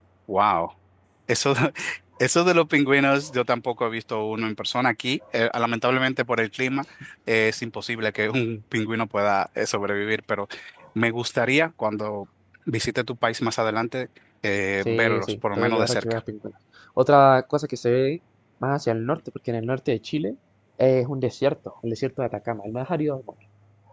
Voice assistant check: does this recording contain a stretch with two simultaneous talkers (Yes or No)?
Yes